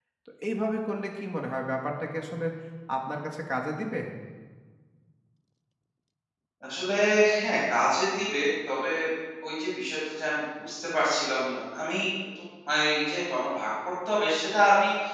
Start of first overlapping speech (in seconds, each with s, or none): none